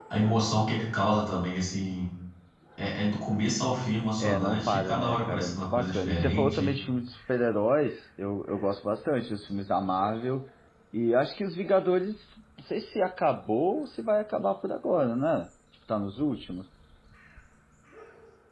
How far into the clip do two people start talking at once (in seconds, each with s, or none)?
4.2 s